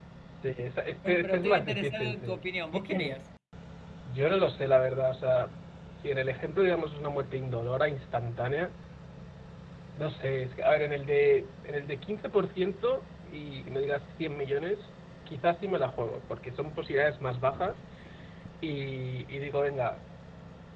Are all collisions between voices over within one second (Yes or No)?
No